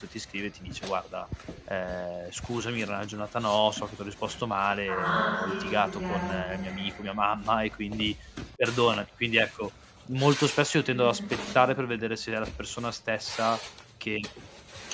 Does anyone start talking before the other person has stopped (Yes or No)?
Yes